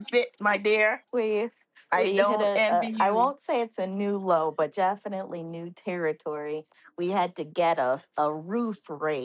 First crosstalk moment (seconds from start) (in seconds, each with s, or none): 2.0 s